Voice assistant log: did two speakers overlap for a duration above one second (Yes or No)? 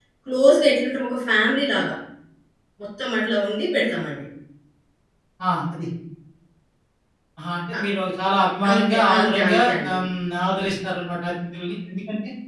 Yes